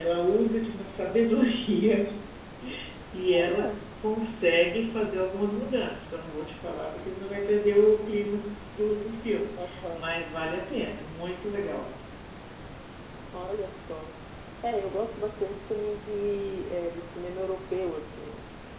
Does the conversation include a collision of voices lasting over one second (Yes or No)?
No